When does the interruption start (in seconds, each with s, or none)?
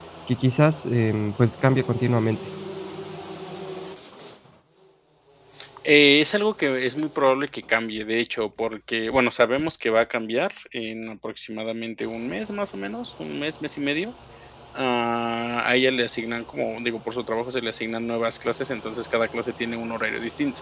none